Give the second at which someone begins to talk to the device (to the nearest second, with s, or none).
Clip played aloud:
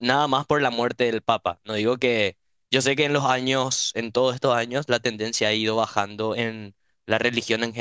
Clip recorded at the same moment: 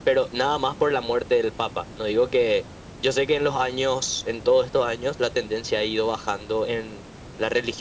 none